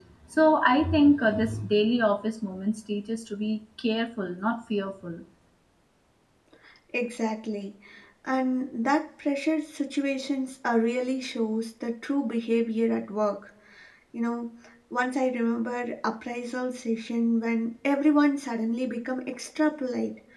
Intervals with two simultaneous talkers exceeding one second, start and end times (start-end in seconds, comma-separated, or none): none